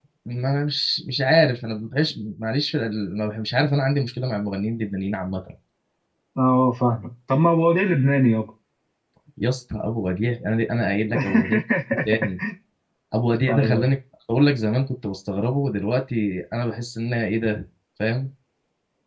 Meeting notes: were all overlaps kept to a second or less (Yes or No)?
Yes